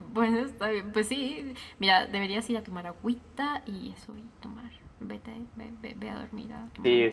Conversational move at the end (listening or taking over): taking over